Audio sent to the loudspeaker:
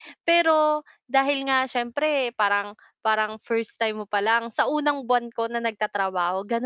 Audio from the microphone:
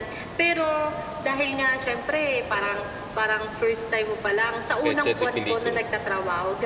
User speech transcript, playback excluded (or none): Petsa de peligro.